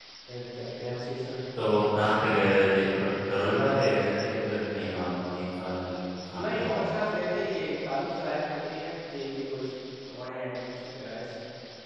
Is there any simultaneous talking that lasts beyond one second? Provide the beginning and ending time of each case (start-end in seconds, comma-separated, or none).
none